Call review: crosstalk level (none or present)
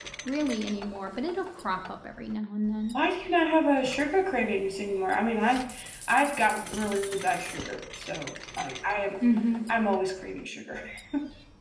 none